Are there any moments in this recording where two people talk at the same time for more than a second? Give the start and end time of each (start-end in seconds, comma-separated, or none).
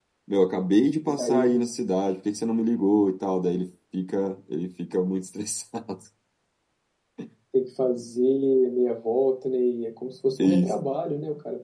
none